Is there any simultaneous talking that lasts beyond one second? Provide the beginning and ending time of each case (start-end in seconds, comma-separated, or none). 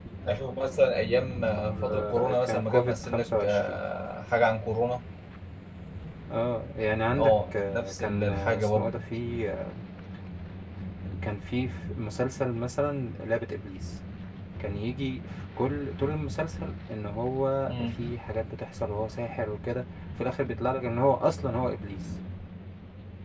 1.9-3.8, 7.2-9.0